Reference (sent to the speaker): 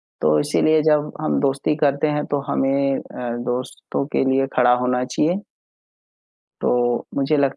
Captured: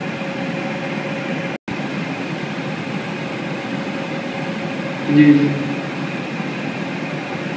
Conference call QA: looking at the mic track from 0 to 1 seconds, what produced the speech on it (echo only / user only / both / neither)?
neither